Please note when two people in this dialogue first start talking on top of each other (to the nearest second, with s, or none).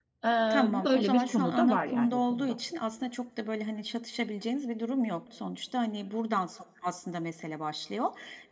1 s